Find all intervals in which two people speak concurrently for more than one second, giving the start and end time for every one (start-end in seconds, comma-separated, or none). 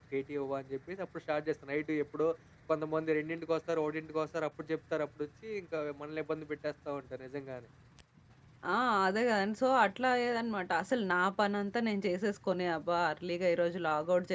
none